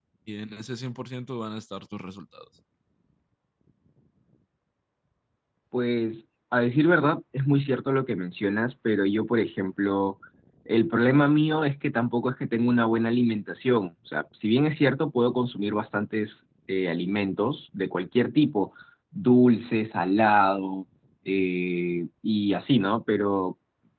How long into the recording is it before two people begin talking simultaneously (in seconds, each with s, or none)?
none